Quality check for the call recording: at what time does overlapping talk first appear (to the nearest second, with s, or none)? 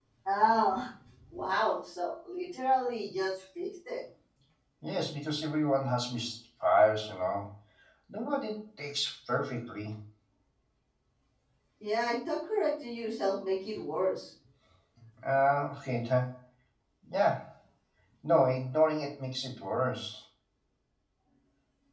none